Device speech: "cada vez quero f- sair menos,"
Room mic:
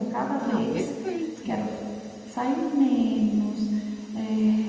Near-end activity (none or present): present